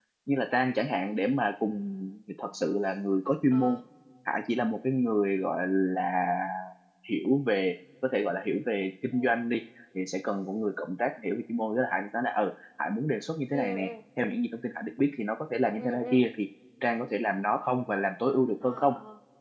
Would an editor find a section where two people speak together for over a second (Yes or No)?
No